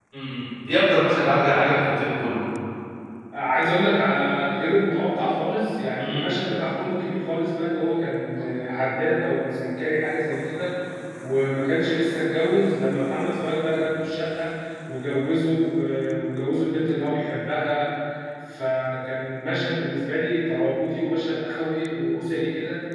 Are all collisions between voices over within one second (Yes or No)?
Yes